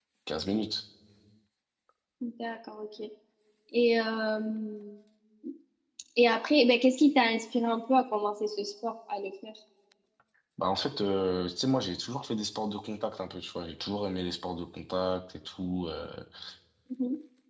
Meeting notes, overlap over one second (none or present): none